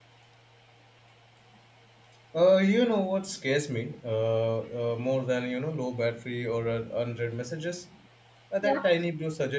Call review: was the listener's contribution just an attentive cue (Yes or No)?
Yes